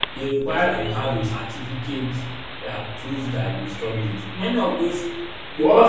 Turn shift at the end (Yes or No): Yes